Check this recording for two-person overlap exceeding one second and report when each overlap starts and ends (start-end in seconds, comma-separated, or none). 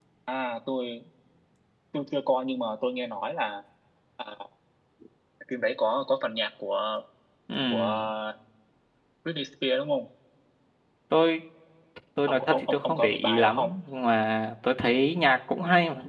12.3-13.7